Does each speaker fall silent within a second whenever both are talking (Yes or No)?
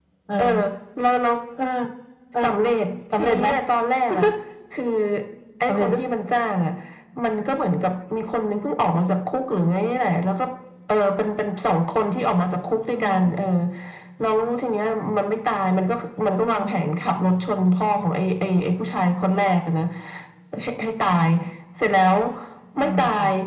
Yes